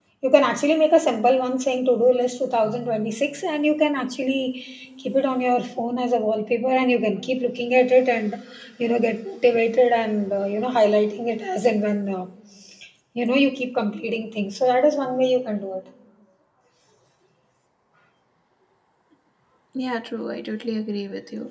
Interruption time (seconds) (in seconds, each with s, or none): none